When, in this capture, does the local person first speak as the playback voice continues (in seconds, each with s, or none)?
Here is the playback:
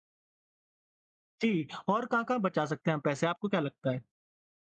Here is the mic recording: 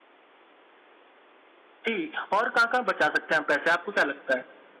none